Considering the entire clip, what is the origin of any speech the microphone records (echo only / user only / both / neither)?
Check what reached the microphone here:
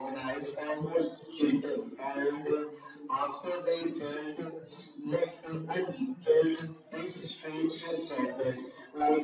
echo only